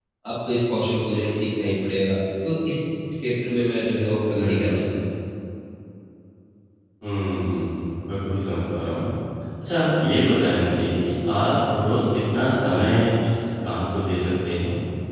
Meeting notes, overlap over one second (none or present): none